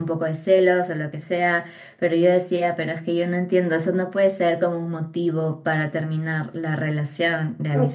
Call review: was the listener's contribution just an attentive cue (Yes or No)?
No